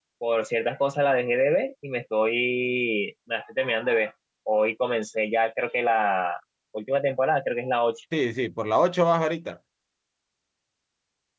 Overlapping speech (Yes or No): No